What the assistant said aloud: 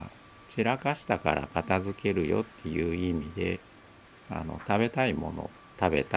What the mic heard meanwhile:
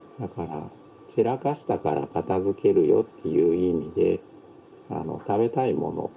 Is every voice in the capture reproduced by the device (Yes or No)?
Yes